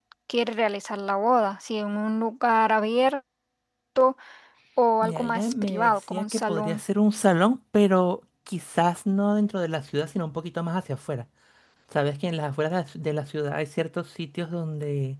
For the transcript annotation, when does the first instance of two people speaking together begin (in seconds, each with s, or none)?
5.0 s